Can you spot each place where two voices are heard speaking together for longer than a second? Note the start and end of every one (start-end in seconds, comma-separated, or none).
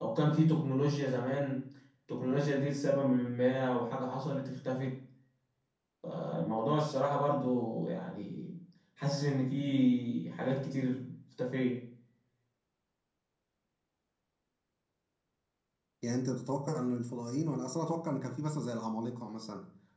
none